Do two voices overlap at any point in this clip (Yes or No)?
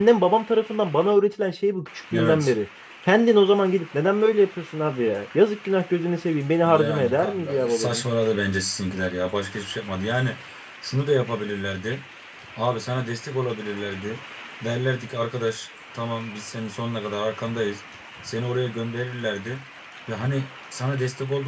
Yes